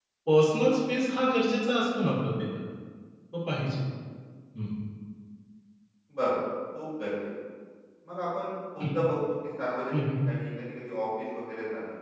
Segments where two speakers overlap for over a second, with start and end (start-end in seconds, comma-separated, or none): none